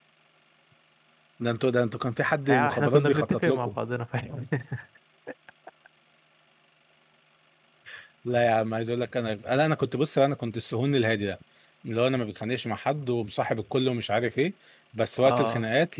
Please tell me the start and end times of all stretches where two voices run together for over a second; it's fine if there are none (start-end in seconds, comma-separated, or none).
2.5-3.8